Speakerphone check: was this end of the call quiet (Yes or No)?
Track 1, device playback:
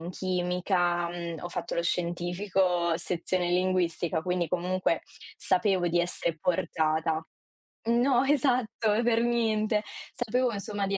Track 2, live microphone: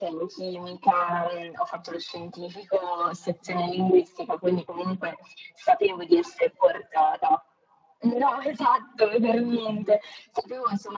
Yes